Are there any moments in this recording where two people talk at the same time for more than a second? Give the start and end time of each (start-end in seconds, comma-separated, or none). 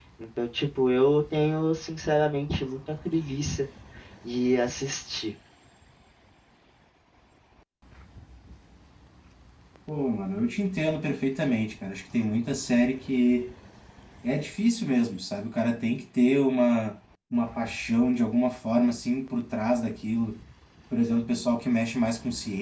none